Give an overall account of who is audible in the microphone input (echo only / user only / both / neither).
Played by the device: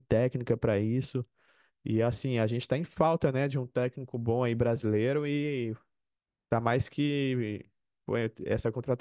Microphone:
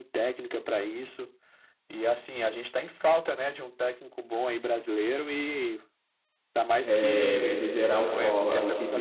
both